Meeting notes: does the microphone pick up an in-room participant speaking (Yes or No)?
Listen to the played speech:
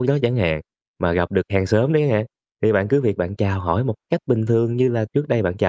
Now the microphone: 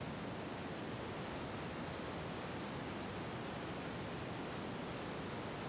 No